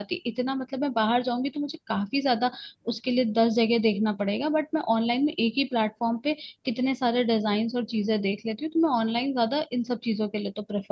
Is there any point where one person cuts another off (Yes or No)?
No